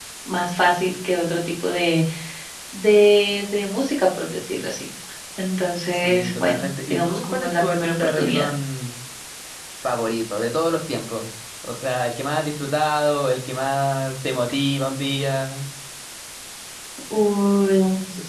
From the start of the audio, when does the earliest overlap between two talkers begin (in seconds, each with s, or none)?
5.9 s